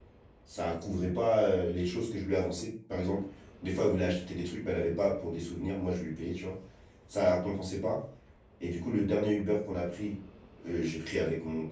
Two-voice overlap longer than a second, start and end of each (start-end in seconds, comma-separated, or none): none